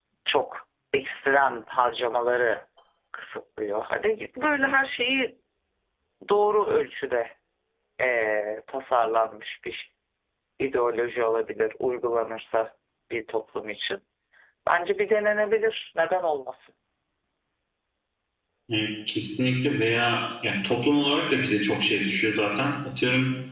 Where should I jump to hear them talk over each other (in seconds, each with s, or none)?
none